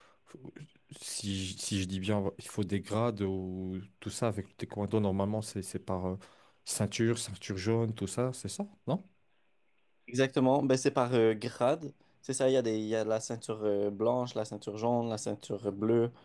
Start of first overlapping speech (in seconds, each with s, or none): none